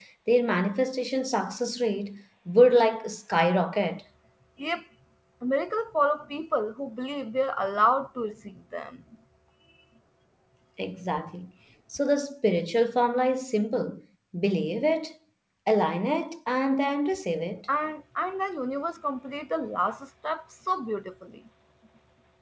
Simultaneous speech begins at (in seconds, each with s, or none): none